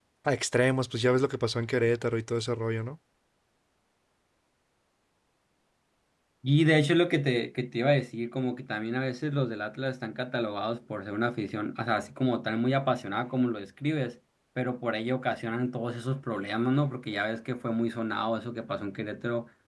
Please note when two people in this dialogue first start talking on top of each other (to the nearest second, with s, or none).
none